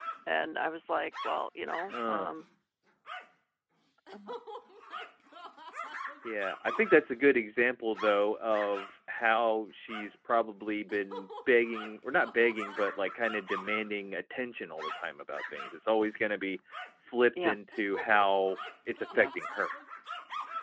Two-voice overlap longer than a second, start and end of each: none

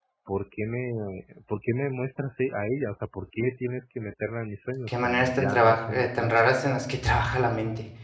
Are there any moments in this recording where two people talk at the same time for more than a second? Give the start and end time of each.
4.9-6.5

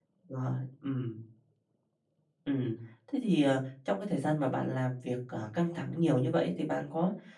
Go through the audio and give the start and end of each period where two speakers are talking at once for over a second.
none

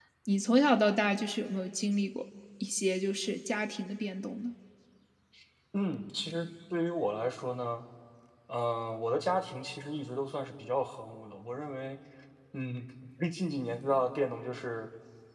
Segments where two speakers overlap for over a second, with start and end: none

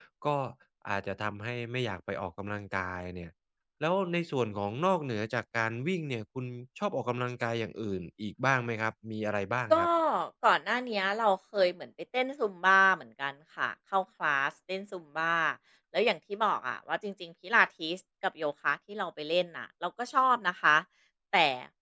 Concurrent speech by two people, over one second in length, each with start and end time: none

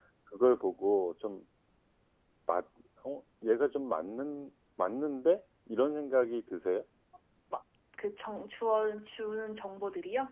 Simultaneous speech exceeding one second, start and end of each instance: none

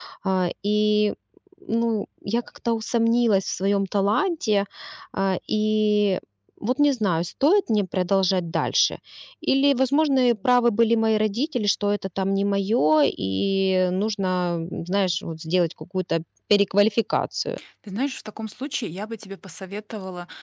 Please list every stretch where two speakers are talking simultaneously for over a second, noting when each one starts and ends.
none

